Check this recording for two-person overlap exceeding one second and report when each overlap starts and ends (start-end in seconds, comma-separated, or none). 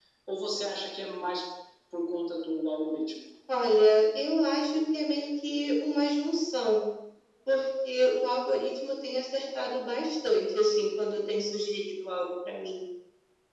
none